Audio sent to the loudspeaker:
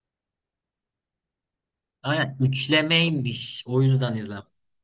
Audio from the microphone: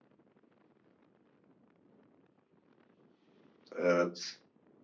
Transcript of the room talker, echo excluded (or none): Evet.